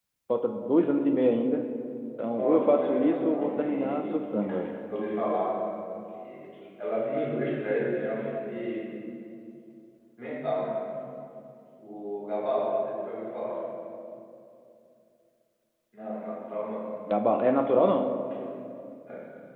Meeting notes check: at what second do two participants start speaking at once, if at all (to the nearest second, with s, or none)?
2 s